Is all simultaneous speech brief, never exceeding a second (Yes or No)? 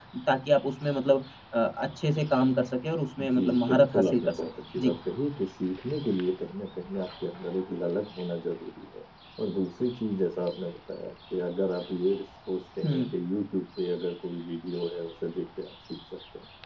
No